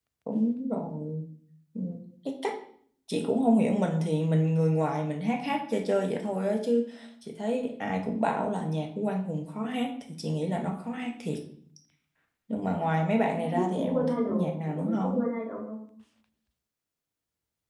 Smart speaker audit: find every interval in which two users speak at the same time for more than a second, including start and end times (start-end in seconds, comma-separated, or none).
13.4-15.3